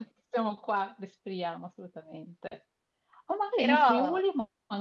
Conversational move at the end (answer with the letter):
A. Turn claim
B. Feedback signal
B